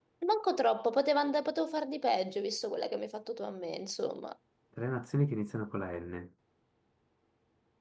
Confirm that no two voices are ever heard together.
Yes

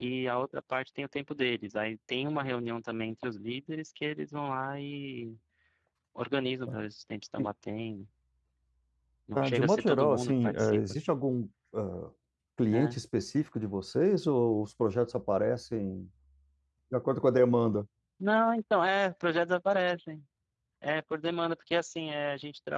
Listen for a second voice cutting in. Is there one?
Yes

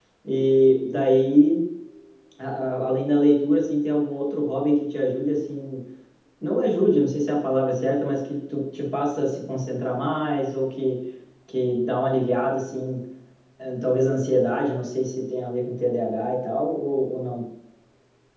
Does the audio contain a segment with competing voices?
No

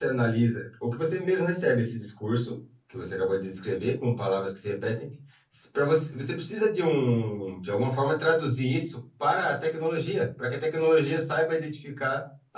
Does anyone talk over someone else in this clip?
No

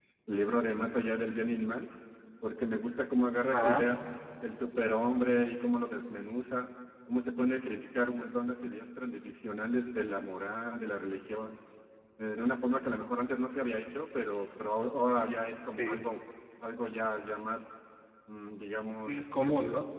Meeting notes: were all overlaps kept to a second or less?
Yes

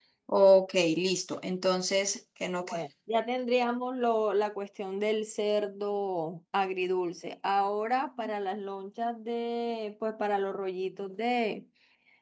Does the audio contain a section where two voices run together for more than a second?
No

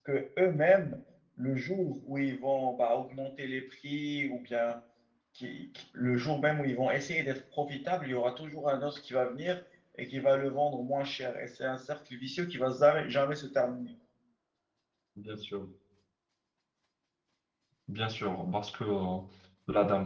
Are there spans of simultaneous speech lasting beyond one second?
No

